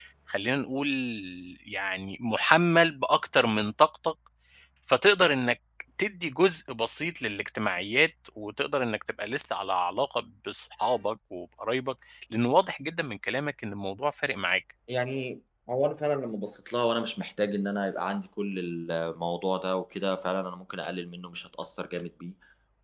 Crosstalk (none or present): none